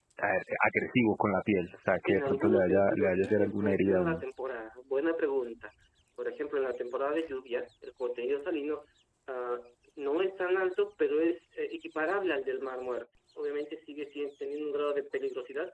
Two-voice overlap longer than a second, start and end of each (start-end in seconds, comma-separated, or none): 2.1-4.2